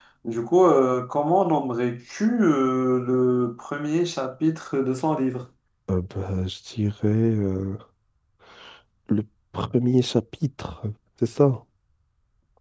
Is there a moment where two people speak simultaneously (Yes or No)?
No